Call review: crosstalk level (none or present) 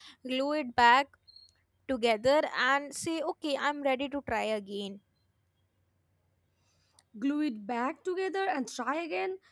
none